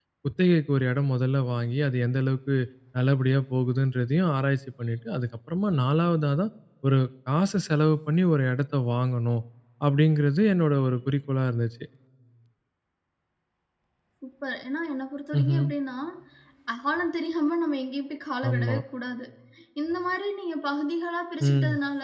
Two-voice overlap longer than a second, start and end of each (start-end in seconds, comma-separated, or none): none